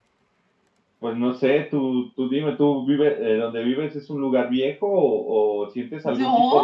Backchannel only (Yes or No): Yes